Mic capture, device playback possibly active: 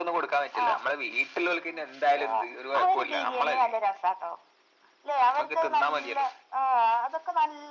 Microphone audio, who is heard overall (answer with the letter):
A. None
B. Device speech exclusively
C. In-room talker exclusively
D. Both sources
B